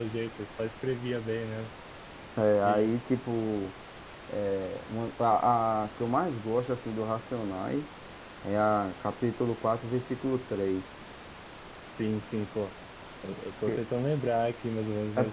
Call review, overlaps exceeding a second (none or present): none